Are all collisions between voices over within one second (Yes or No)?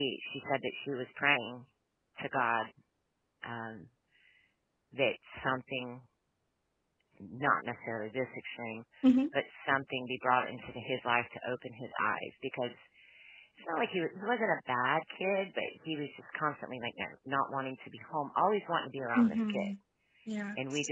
Yes